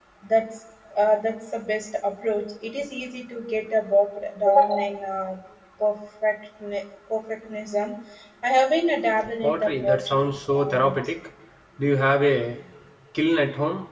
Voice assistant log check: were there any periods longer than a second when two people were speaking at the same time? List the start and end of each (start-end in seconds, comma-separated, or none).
9.4-11.0